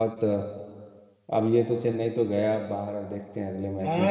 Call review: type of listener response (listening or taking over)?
taking over